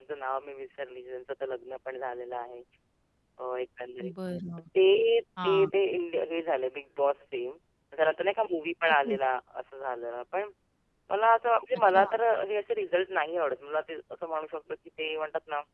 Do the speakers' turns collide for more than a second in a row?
No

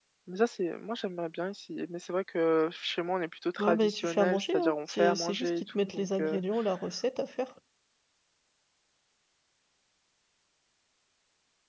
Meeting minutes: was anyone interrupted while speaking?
Yes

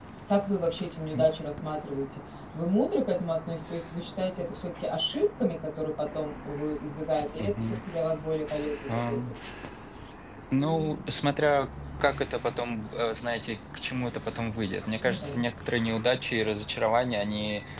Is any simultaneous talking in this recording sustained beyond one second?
No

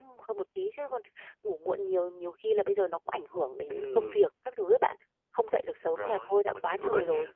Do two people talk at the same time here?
Yes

